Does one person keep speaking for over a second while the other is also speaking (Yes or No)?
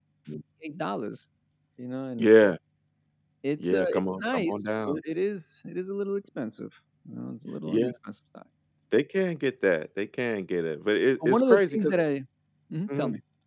Yes